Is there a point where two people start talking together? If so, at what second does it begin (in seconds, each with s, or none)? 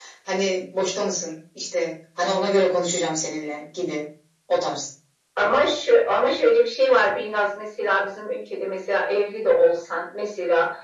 none